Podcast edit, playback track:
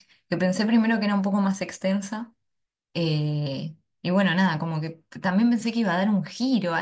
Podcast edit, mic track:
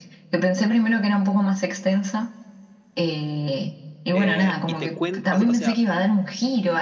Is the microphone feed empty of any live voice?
No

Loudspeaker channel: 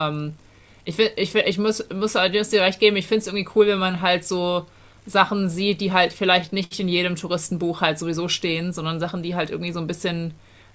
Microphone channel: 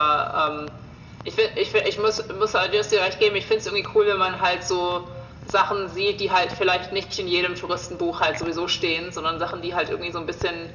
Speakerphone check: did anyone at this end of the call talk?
No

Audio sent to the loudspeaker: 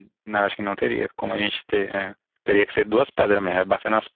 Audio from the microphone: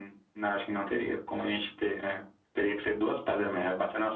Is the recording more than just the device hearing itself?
No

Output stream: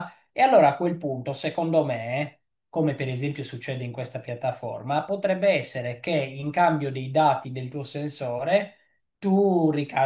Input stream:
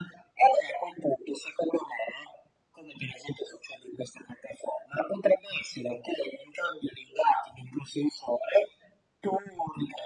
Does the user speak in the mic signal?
No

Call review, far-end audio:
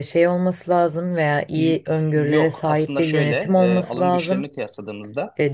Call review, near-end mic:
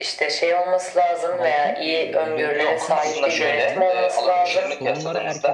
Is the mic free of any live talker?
No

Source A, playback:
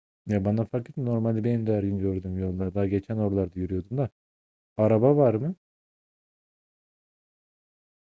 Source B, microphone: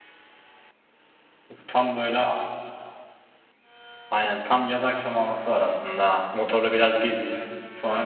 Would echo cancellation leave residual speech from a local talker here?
Yes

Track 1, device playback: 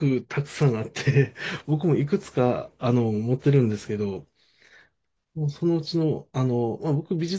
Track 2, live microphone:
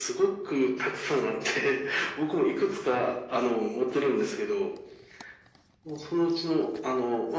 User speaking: No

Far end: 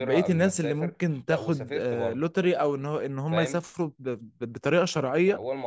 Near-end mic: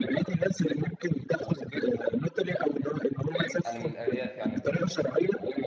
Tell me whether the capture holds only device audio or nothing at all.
No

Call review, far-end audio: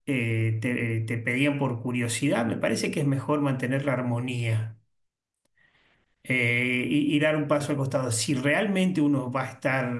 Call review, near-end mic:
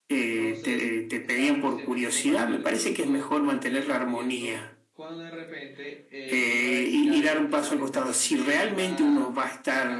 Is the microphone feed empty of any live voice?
No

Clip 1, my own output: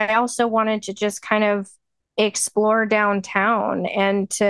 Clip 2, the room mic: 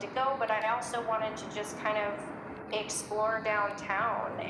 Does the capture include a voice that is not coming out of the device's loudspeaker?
No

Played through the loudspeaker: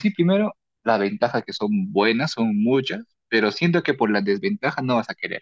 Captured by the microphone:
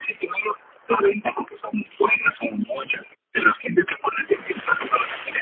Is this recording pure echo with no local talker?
Yes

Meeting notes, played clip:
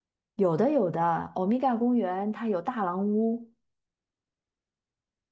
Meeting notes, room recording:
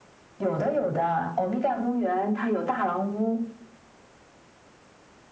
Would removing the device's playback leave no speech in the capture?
Yes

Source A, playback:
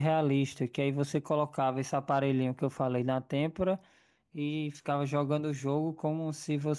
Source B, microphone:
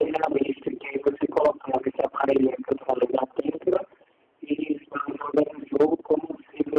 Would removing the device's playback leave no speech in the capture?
Yes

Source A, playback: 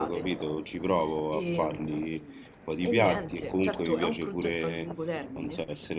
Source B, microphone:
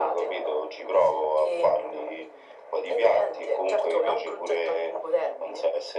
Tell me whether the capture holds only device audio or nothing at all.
Yes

